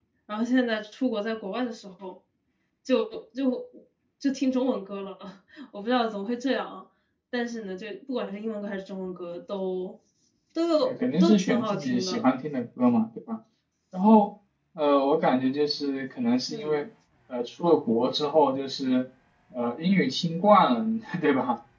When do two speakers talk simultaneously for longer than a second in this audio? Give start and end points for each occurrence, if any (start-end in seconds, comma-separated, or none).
10.8-12.2